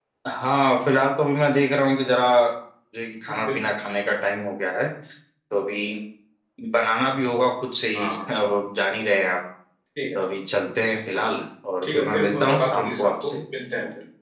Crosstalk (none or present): present